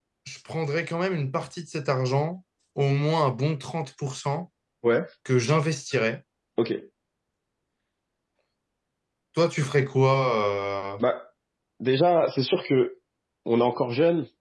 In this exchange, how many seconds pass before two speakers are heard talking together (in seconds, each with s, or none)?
none